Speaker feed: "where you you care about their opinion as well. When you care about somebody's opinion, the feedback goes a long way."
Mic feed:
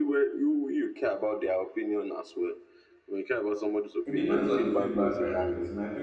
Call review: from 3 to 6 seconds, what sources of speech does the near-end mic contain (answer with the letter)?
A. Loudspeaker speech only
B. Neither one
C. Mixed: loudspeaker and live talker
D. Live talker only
C